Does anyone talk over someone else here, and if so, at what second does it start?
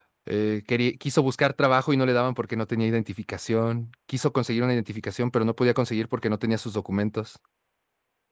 none

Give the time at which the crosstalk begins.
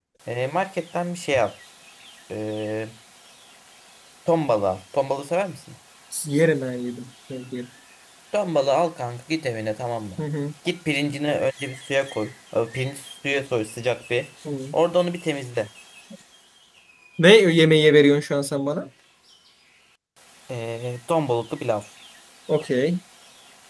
none

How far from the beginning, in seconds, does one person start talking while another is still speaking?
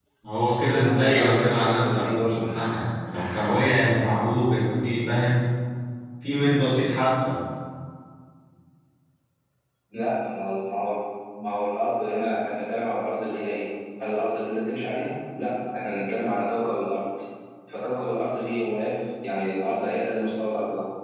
0.7 s

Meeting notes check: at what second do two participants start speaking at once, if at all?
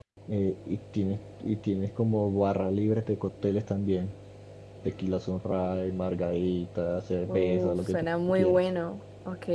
7.3 s

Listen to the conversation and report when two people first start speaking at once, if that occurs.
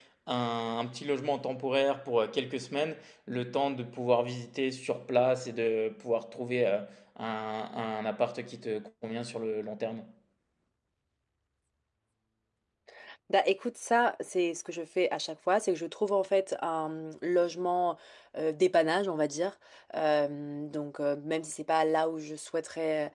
none

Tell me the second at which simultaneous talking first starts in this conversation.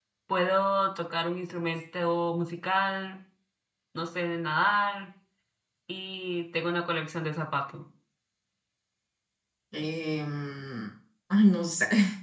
none

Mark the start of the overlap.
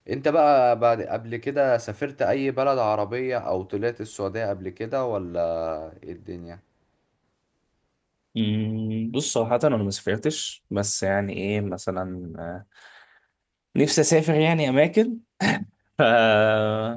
none

